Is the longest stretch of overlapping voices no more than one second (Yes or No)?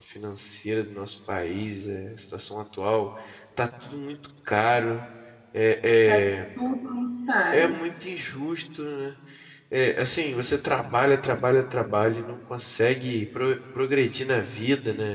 Yes